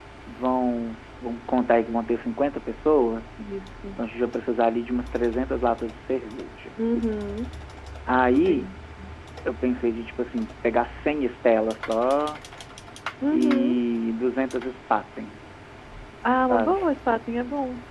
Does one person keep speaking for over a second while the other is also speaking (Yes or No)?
No